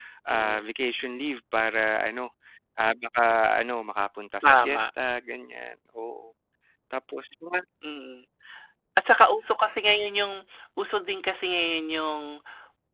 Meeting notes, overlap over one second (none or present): none